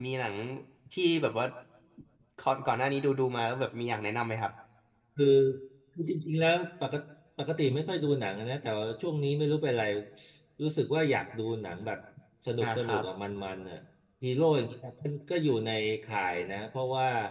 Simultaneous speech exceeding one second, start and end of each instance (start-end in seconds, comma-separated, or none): none